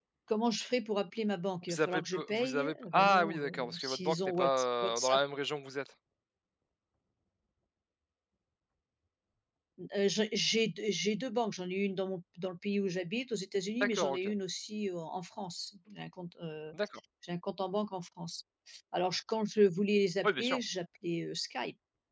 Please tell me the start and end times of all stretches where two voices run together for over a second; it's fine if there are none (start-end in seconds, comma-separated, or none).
1.7-5.2